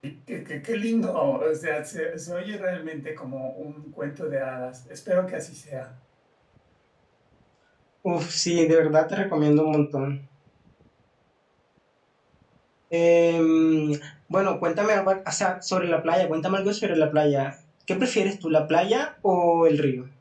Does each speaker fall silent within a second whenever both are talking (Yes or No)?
Yes